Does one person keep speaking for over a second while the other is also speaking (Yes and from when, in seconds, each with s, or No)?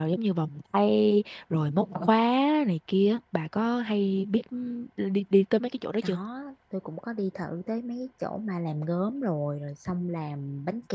No